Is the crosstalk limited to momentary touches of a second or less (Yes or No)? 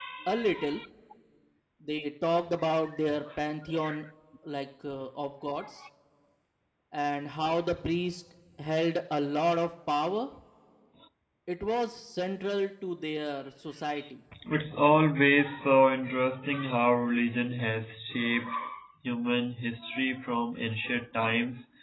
Yes